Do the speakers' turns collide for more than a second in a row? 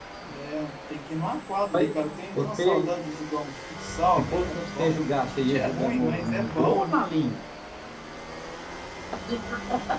Yes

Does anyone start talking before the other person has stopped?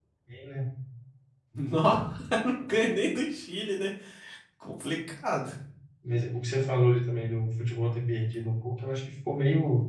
No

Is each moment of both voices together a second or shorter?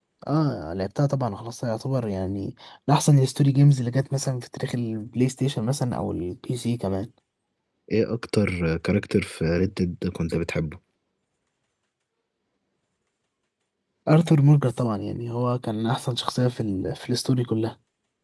Yes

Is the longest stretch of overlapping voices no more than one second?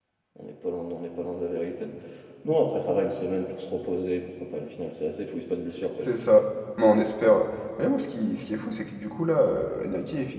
Yes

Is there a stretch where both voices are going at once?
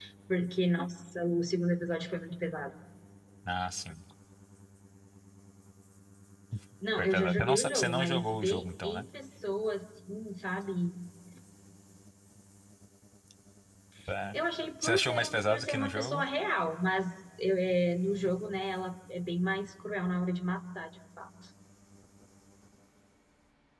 Yes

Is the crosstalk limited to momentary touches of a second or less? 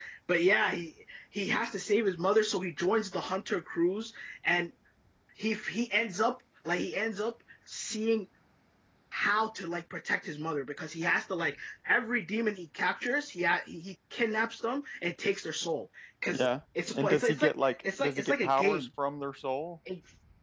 No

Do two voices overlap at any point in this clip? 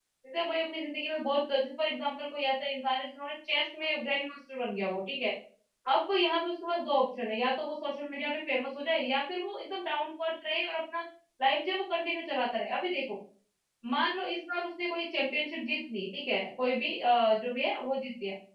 No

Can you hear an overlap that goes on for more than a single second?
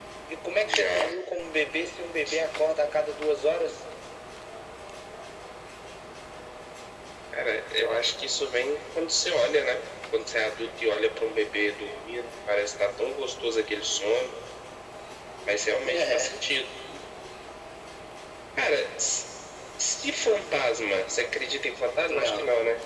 No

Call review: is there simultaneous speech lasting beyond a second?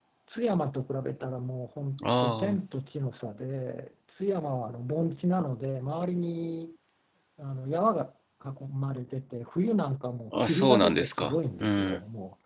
Yes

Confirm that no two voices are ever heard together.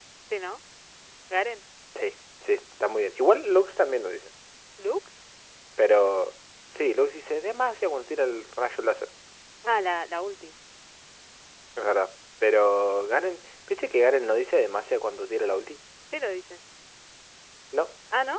Yes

